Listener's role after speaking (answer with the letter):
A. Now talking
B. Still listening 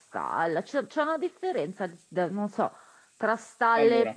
B